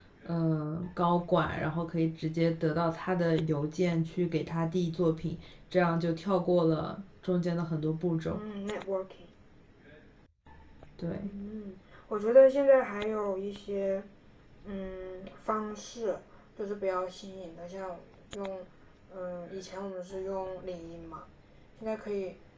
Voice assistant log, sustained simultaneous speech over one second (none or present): none